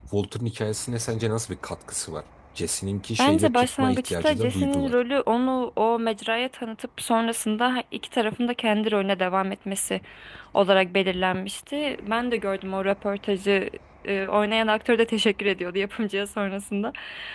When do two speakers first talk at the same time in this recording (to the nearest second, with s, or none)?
3 s